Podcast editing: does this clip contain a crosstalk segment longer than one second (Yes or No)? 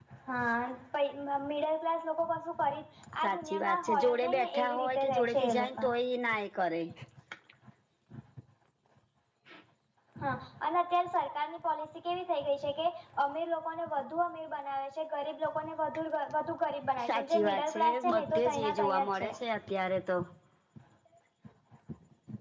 Yes